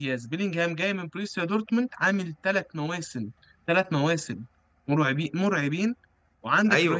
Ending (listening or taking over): taking over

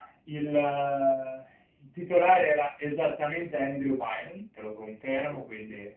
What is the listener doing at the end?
listening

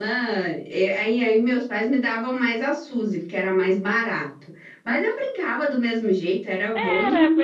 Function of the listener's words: taking over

